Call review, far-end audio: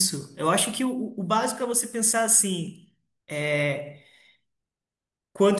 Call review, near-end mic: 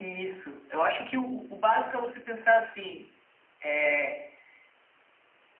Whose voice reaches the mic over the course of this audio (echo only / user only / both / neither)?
echo only